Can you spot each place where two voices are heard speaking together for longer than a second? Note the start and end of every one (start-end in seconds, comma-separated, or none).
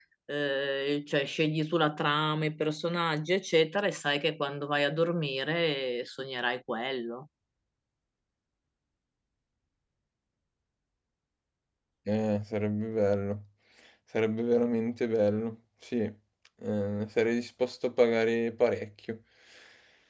none